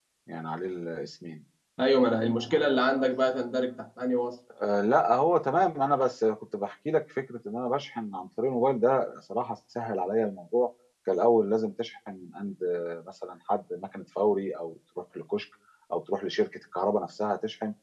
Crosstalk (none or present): none